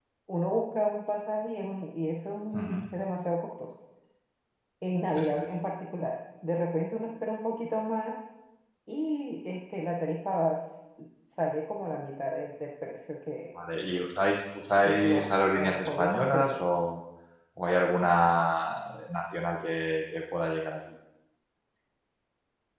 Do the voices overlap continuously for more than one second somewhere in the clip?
Yes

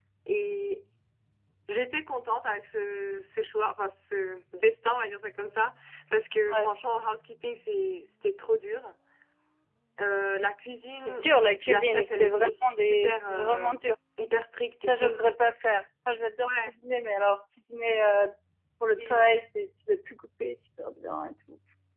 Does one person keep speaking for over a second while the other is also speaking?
Yes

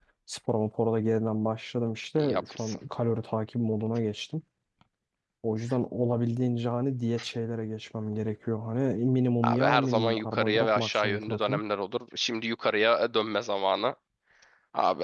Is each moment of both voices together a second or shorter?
No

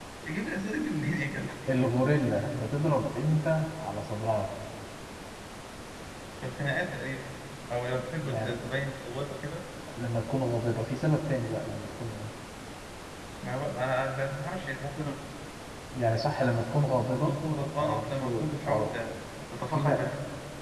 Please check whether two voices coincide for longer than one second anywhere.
Yes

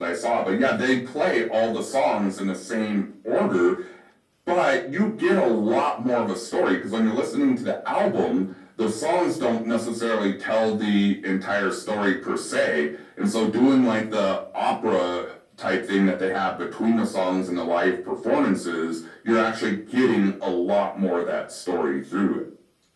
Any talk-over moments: No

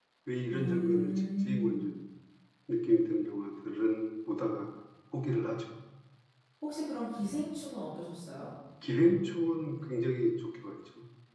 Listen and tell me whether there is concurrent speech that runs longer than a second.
Yes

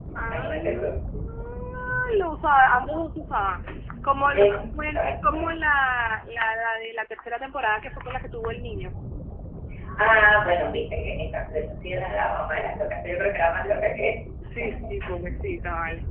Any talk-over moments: Yes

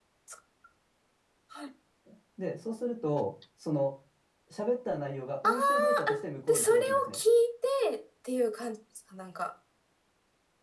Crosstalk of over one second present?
Yes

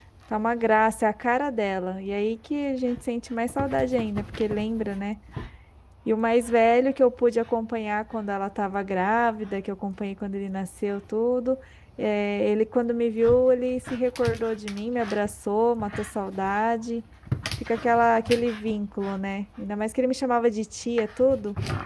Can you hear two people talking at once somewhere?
No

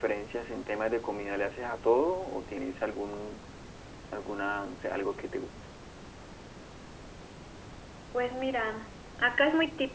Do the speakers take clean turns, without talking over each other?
Yes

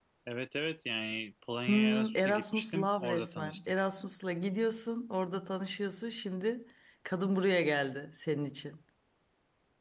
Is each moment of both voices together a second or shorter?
No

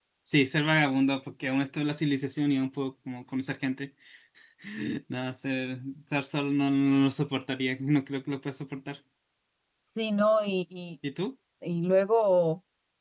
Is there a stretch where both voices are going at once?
No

